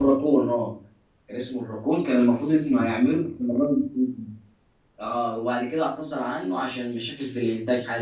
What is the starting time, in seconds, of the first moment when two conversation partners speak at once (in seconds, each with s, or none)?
2.1 s